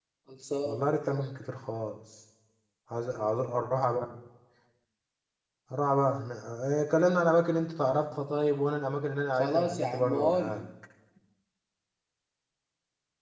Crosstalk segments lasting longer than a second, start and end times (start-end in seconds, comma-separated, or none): 9.4-10.6